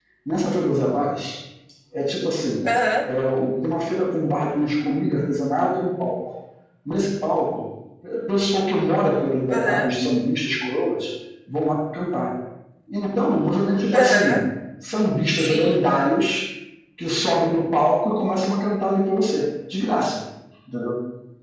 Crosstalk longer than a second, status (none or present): none